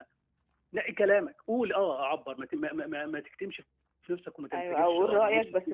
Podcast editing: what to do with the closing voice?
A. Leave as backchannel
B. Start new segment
B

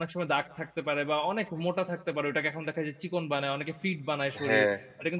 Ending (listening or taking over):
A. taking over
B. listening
A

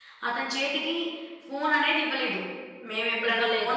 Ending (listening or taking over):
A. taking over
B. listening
B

